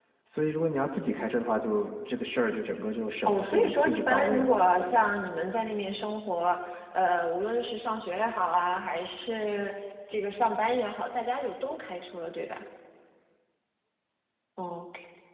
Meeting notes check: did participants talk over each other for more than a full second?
Yes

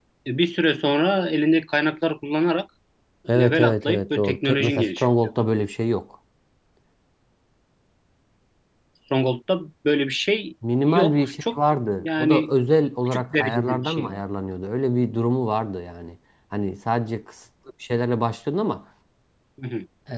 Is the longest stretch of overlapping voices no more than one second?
No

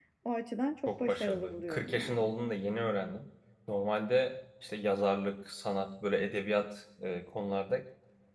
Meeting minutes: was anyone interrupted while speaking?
Yes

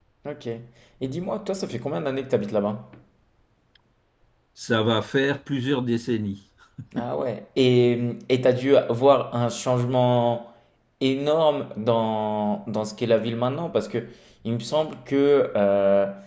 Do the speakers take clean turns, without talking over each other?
Yes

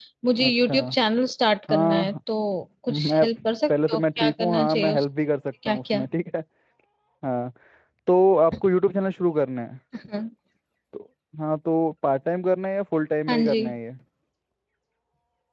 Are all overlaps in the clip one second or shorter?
No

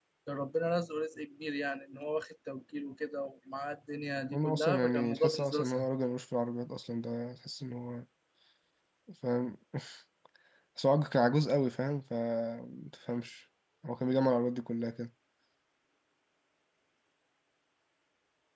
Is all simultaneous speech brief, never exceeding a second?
No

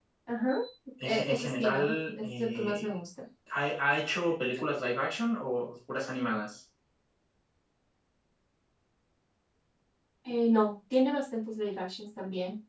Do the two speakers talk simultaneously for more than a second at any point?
Yes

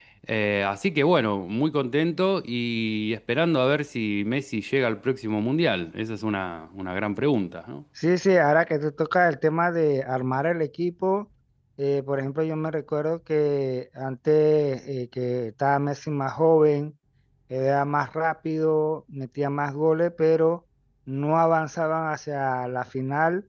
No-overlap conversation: Yes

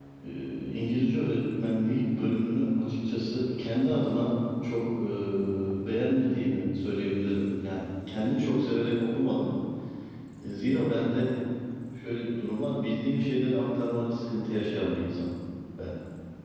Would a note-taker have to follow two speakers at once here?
No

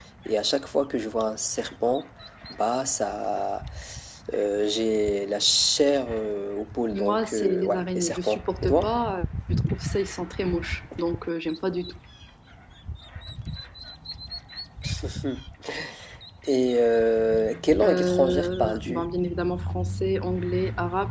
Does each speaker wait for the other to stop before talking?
No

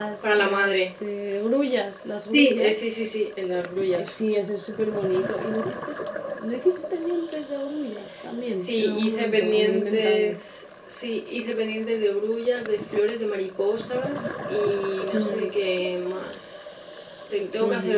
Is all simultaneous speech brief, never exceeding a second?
No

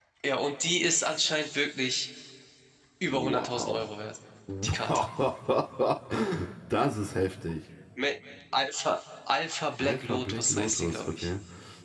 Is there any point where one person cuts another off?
Yes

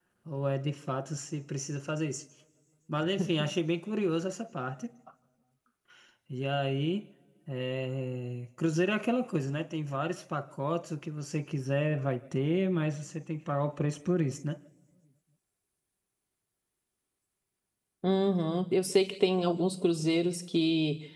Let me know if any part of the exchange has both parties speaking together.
No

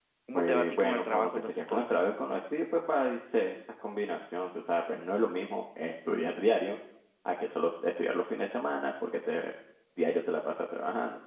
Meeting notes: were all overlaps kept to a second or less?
No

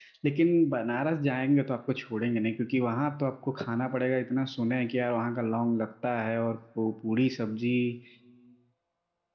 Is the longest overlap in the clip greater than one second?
No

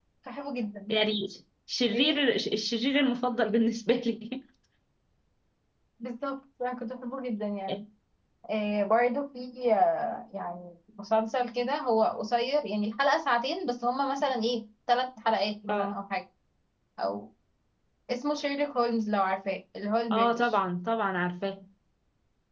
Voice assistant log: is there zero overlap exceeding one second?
Yes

